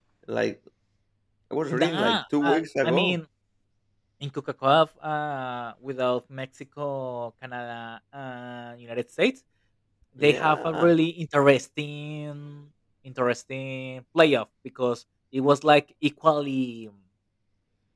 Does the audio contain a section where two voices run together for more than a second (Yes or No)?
Yes